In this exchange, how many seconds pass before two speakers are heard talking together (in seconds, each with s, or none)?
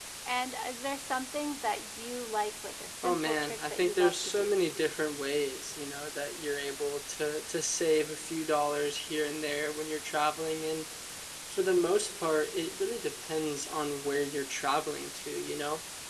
3.0 s